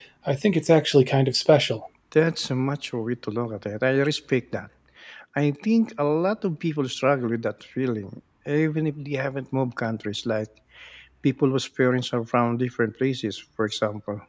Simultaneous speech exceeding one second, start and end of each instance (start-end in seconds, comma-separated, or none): none